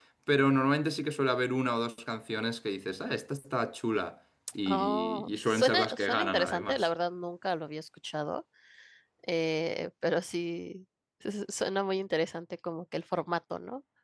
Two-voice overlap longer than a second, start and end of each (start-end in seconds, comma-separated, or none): 4.7-6.9